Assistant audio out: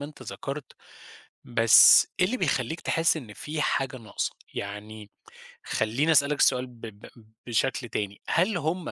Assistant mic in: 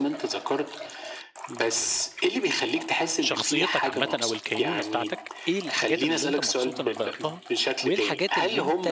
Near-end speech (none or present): present